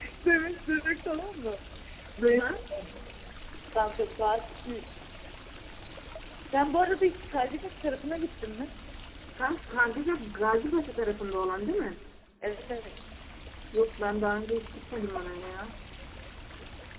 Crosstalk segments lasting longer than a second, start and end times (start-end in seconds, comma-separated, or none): none